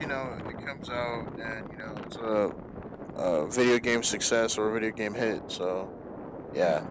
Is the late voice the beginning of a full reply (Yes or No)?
No